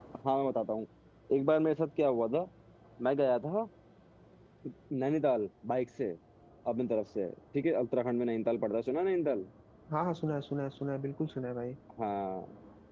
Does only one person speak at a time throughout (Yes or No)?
Yes